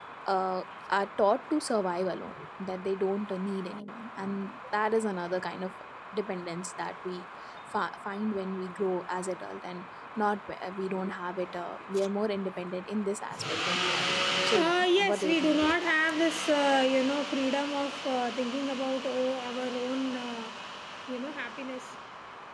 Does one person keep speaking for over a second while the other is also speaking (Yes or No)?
Yes